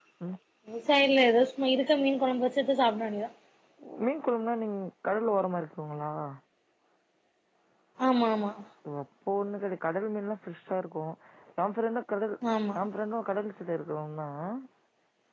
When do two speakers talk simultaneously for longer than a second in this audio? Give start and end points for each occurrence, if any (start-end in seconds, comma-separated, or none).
none